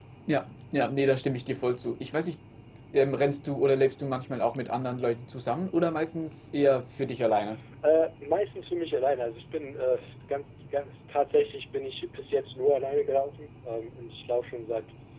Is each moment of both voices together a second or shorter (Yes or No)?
Yes